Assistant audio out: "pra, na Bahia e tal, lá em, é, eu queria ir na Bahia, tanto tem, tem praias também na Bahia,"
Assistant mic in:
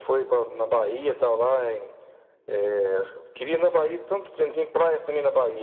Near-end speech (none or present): none